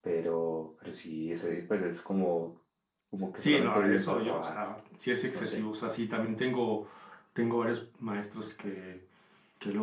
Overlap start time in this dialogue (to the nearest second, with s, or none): 3 s